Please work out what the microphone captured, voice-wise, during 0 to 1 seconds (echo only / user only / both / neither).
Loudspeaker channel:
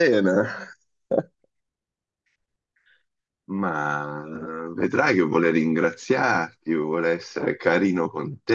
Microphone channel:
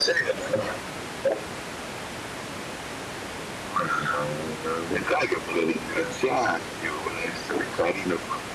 echo only